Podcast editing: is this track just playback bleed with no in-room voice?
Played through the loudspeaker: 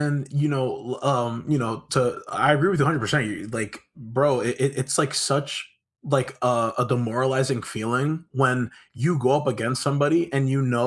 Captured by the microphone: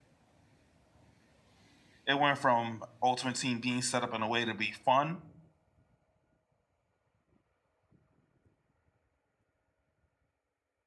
No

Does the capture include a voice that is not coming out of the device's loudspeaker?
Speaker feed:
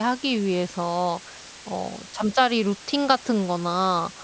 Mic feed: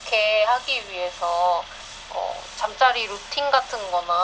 No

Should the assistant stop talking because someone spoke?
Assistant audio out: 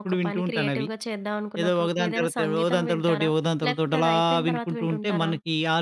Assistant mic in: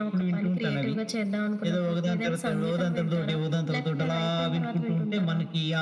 No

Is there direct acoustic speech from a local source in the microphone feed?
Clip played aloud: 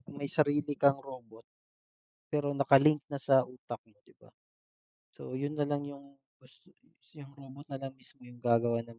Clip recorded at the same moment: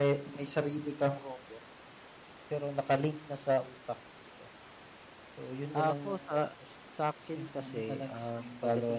Yes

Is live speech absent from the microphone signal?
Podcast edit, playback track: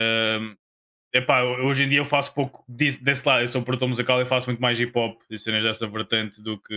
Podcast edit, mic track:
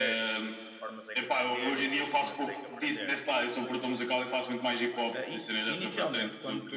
No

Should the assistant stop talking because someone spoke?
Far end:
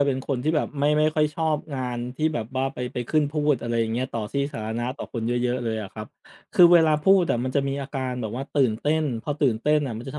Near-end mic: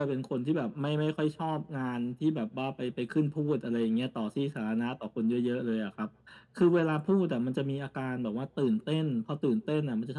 No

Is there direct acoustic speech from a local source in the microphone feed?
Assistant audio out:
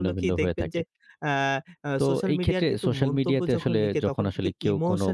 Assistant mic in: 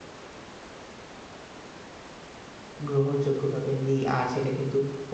Yes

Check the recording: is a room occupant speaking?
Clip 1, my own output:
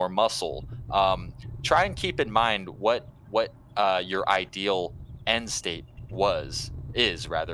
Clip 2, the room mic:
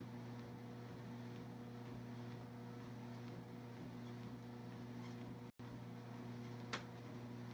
No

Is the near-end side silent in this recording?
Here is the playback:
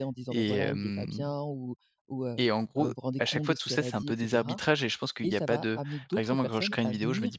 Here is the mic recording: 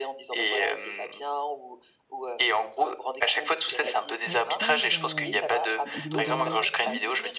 No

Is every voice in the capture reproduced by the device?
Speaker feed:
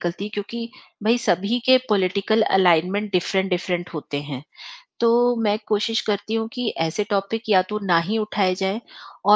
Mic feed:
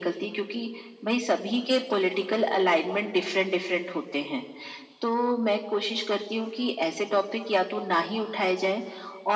Yes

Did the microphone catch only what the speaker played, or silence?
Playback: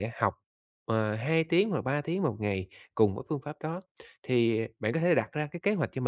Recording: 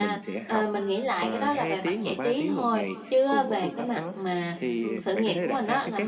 No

